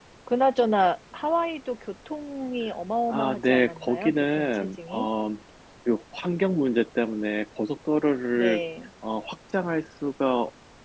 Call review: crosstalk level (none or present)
present